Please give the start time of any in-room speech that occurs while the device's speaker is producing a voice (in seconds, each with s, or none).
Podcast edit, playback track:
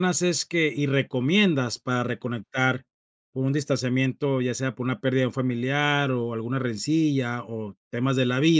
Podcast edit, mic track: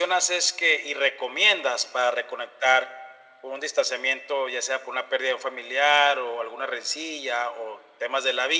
none